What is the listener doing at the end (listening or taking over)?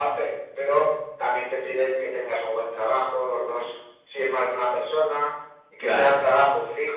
listening